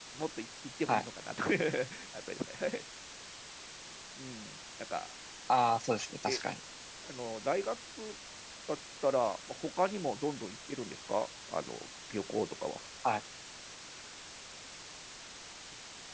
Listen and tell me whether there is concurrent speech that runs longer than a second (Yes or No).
No